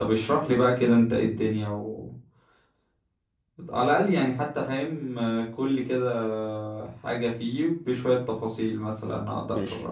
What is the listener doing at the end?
taking over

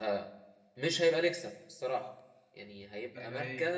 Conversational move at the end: listening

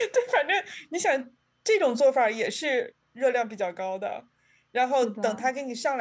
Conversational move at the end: listening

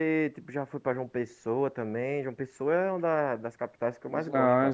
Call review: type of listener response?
taking over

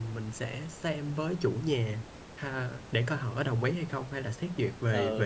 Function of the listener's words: taking over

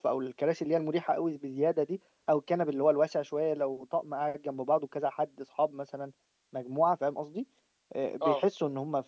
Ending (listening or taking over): listening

